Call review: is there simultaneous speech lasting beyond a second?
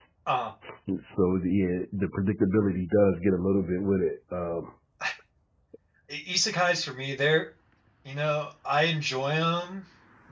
No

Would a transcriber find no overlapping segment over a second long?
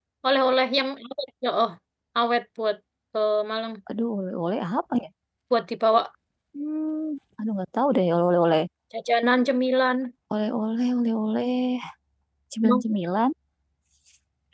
Yes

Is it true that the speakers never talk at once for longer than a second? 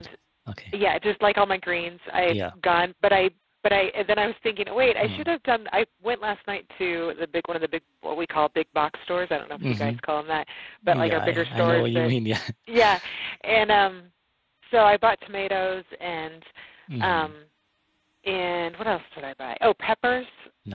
No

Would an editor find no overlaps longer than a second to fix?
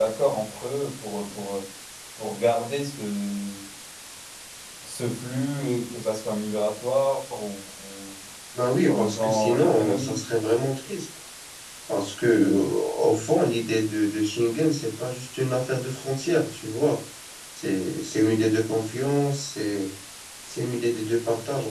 No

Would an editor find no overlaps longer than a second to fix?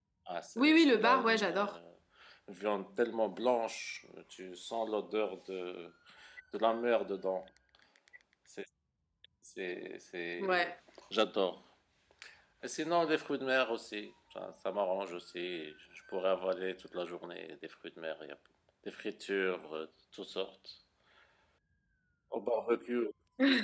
No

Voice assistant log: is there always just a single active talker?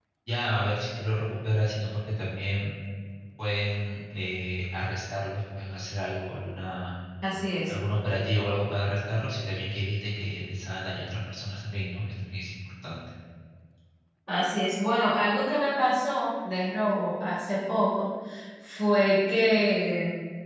Yes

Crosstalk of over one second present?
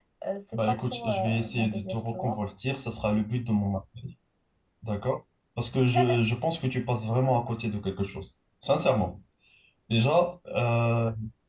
Yes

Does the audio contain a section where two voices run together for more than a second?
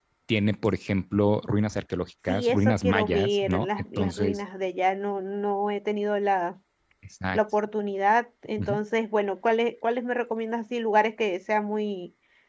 Yes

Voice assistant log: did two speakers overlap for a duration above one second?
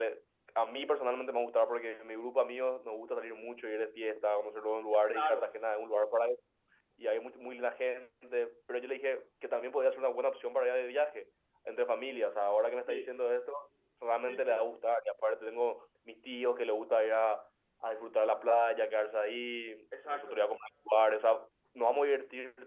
No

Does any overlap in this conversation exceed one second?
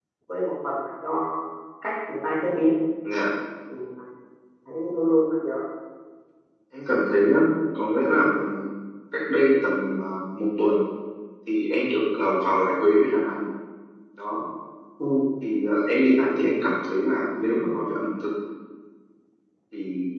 No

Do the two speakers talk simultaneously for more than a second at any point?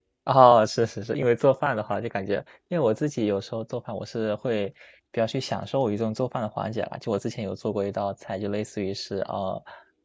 No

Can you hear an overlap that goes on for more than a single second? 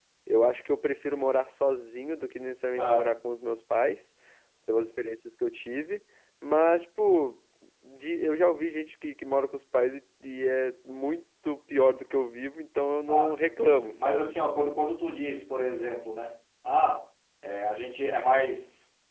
Yes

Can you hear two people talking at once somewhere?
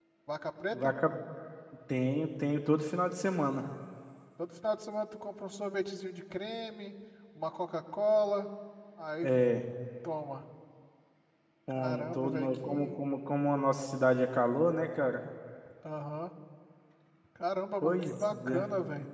Yes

